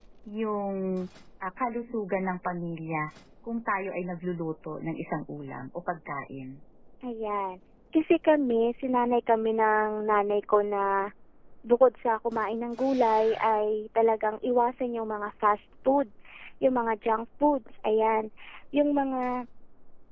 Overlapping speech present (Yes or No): No